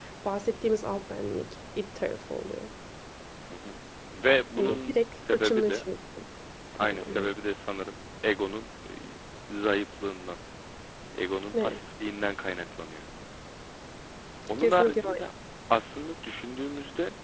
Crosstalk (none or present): present